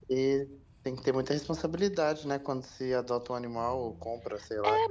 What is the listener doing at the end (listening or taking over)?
taking over